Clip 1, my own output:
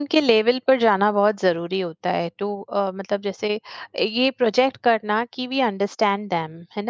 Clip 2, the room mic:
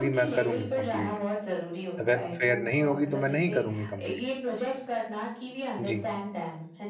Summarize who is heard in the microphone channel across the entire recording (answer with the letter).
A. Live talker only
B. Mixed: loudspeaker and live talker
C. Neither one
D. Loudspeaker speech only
B